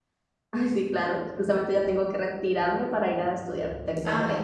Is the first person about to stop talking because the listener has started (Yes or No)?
Yes